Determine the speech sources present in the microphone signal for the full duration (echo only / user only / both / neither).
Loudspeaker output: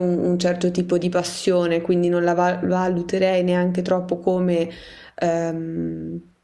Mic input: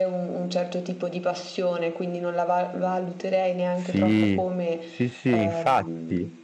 both